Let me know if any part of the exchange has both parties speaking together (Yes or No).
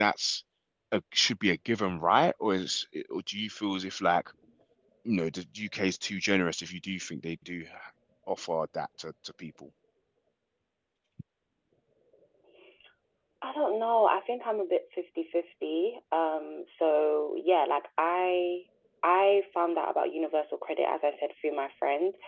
No